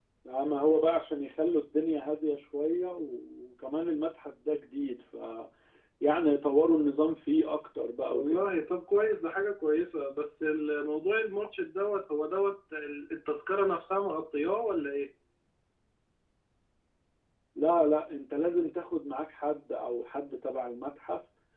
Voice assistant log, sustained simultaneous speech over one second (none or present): none